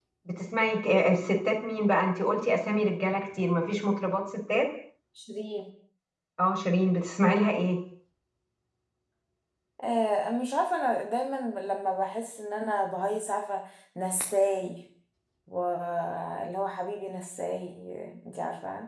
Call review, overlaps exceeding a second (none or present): none